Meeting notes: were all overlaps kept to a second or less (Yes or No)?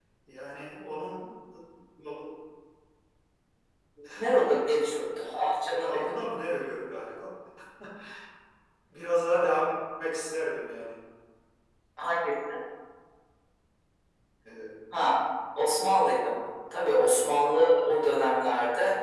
Yes